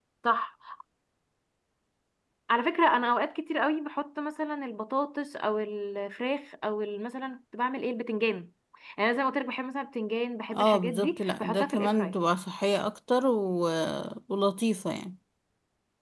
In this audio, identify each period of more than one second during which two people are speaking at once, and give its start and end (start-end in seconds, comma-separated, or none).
10.5-12.1